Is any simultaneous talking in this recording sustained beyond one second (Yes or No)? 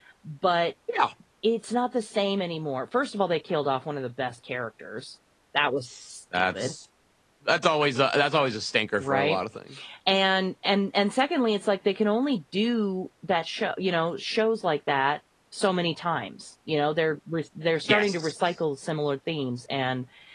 No